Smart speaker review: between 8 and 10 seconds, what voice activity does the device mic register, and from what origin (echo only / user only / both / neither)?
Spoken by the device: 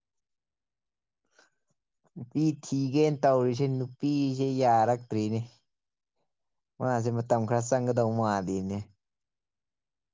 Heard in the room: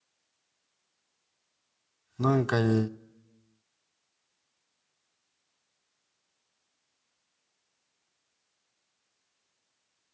neither